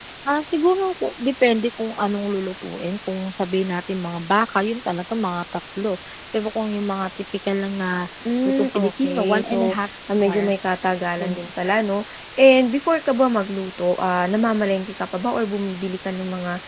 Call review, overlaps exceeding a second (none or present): present